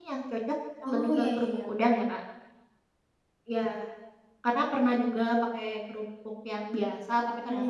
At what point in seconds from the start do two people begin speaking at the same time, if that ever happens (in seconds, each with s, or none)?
0.9 s